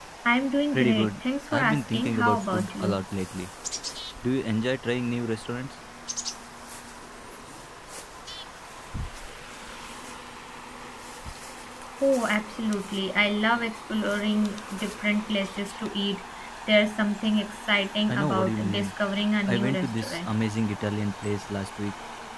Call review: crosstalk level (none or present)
present